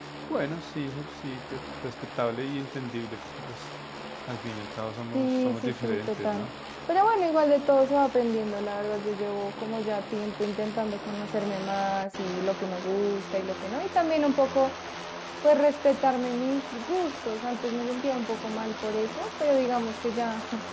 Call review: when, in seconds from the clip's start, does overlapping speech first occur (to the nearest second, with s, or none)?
5 s